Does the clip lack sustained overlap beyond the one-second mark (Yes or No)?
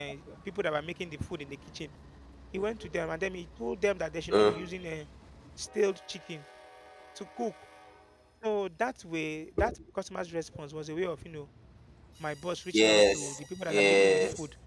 No